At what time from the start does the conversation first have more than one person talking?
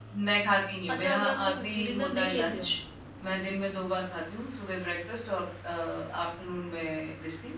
0.9 s

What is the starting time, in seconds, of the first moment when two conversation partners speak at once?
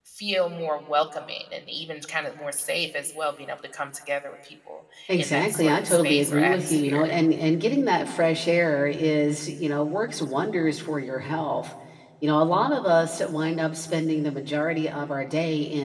5.1 s

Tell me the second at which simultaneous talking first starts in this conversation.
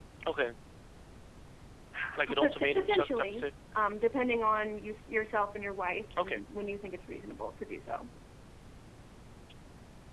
2.2 s

